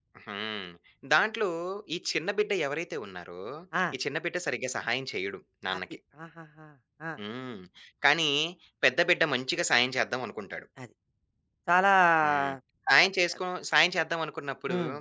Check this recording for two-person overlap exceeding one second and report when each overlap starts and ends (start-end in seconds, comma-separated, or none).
none